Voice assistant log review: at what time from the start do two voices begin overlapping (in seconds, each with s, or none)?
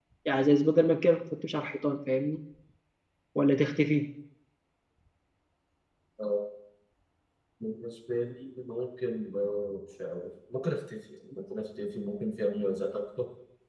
none